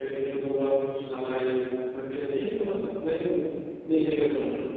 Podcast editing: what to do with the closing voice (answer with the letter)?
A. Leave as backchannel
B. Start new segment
B